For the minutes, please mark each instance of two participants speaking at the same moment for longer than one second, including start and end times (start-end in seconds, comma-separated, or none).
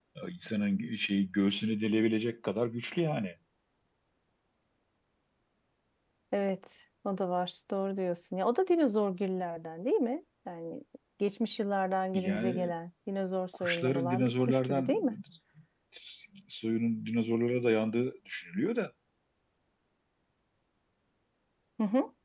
13.6-15.0